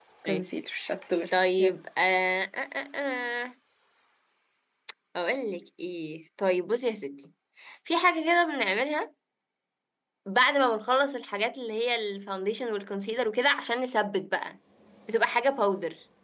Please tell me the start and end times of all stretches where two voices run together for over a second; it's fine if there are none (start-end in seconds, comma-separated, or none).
none